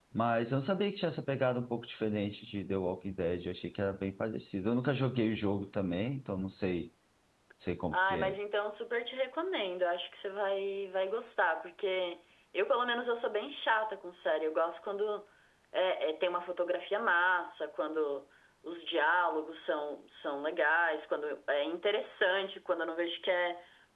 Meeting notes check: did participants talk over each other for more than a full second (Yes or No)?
No